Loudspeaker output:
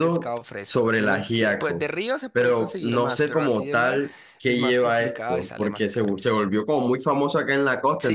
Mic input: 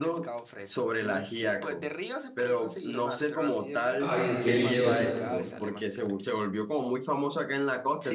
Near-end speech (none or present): present